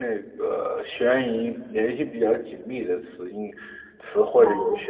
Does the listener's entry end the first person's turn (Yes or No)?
No